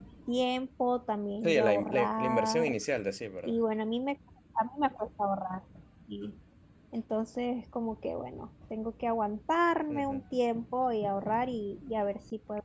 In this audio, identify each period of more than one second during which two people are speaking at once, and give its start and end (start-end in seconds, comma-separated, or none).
1.4-2.8